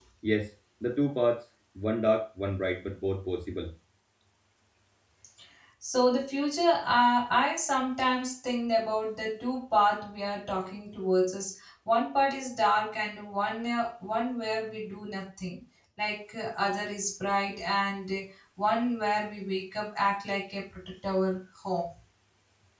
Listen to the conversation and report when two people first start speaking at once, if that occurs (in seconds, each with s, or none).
none